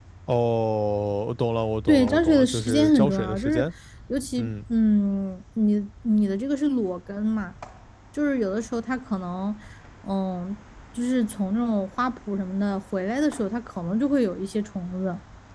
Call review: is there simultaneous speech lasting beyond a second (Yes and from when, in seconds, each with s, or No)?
Yes, from 1.9 s